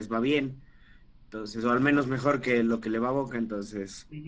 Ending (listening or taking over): taking over